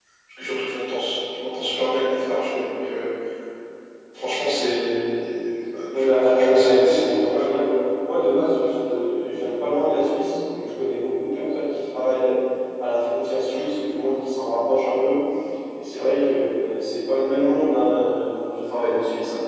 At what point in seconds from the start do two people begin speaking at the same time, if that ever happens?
5.9 s

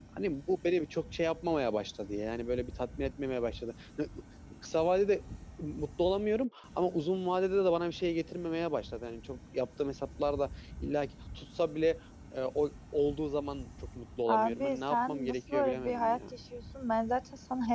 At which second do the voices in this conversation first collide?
14.3 s

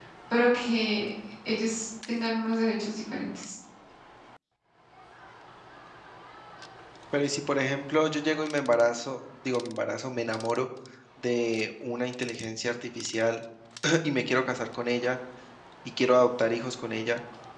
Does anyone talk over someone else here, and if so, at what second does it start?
none

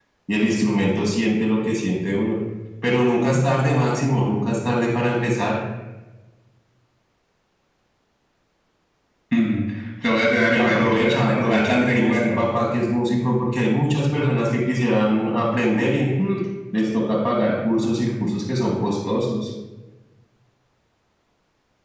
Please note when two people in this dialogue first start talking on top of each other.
10.5 s

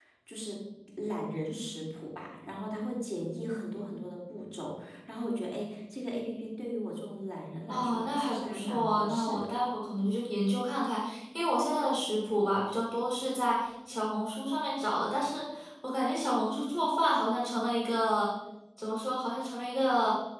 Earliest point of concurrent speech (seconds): 7.7 s

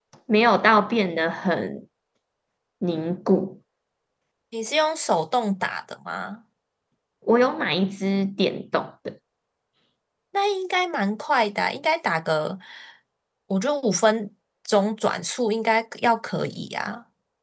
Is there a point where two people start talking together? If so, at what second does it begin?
none

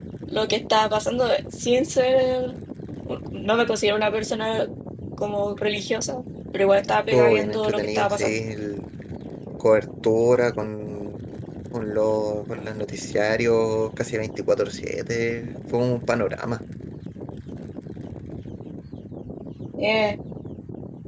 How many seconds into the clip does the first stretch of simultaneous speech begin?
7.1 s

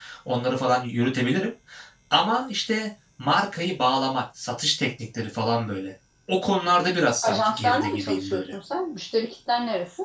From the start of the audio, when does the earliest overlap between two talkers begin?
7.2 s

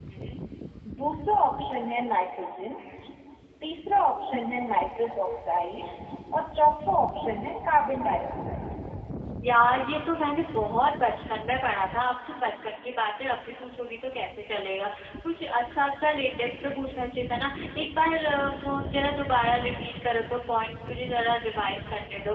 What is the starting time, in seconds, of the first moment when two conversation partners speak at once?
none

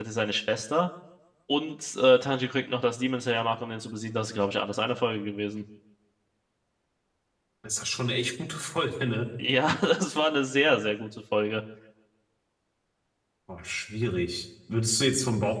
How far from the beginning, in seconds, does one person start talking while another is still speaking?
none

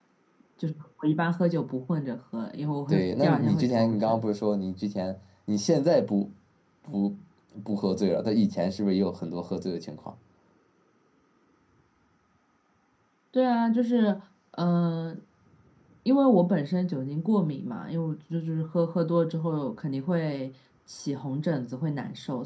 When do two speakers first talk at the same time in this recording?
2.9 s

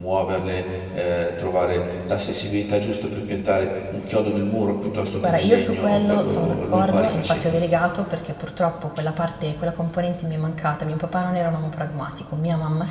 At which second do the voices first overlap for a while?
5.2 s

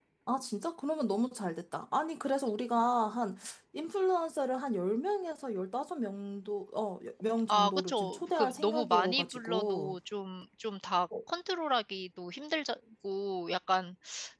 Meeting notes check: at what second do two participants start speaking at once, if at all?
7.5 s

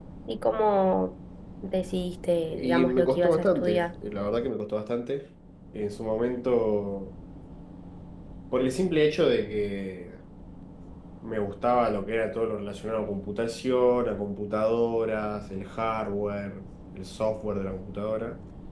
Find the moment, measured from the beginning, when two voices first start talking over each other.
2.5 s

